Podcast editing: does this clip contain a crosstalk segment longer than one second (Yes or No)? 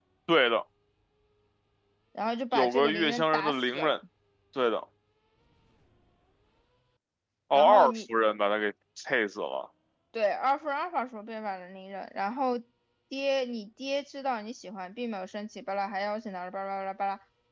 Yes